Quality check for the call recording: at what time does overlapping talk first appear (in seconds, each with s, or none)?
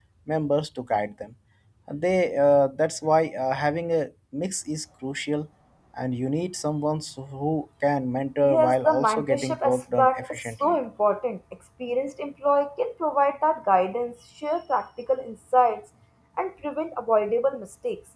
8.4 s